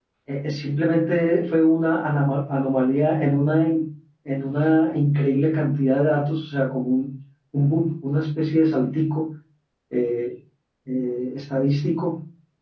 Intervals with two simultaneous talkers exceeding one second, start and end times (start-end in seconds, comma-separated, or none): none